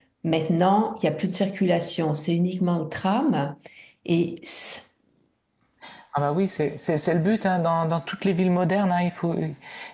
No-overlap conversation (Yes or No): Yes